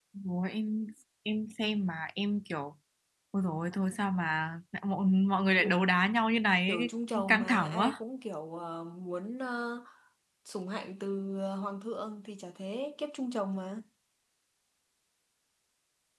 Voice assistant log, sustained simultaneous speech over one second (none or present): present